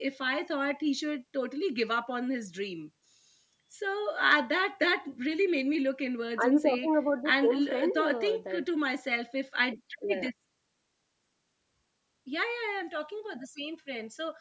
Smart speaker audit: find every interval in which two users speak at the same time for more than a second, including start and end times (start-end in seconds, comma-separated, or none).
7.2-8.6